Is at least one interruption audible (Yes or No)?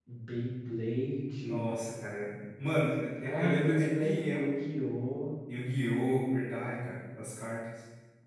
Yes